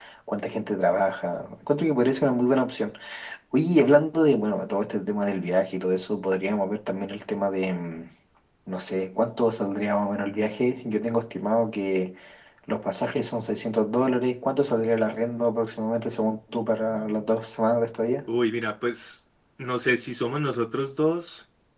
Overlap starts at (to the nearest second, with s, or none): none